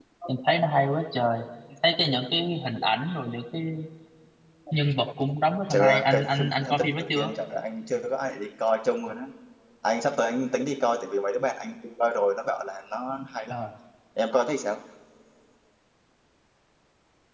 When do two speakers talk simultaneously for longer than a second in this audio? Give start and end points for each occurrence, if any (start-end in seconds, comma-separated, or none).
5.7-7.3